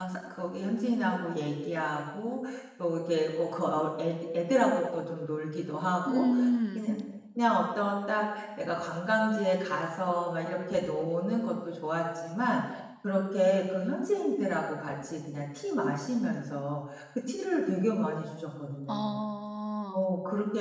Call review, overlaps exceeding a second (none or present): none